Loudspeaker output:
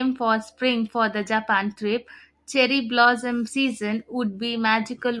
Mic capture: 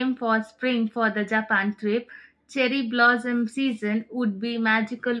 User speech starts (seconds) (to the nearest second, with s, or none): none